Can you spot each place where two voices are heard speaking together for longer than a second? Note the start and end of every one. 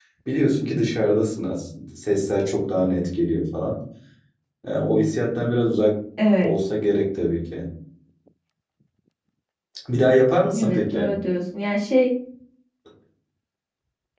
none

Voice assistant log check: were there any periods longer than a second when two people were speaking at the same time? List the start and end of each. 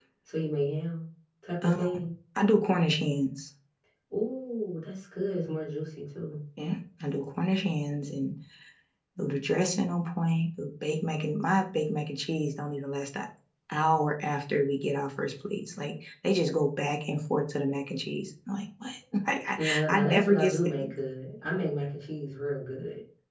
19.6-20.9

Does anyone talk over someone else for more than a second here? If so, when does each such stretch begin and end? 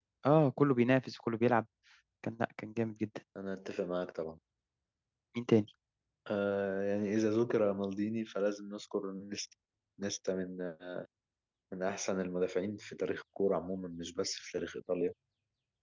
none

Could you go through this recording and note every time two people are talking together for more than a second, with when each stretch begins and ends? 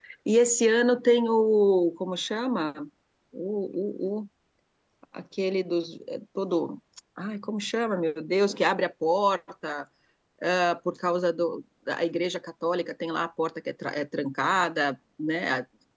none

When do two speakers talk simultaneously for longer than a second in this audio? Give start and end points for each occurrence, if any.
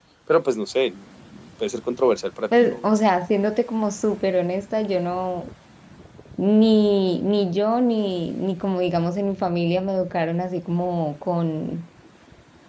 none

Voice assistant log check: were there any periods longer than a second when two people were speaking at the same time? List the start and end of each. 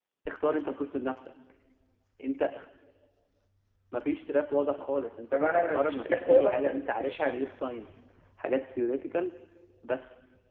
5.3-7.5

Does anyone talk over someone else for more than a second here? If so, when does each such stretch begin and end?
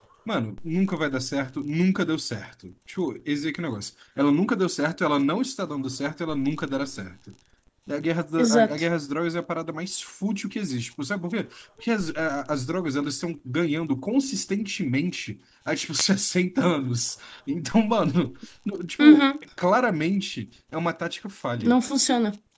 none

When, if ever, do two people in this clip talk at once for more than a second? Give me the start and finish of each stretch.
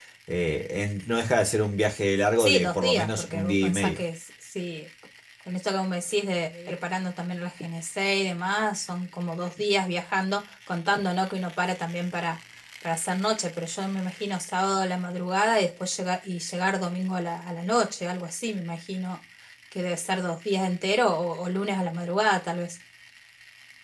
2.4-4.0

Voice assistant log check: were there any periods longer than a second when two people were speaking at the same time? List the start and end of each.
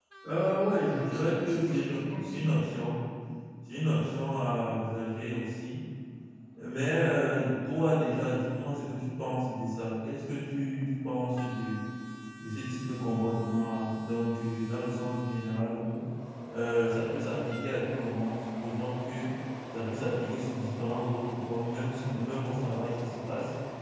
0.9-2.3

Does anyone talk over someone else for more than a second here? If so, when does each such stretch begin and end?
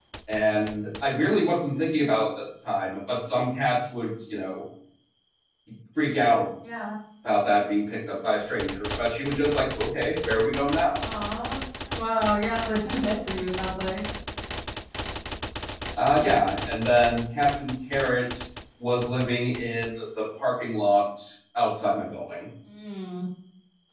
none

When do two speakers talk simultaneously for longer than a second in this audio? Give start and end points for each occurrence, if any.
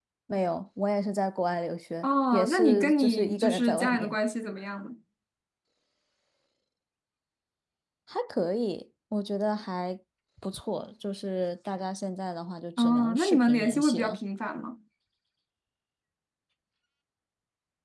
2.0-4.2, 12.8-14.2

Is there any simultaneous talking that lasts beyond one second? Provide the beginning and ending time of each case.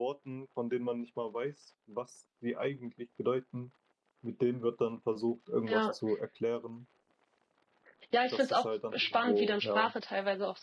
8.3-9.9

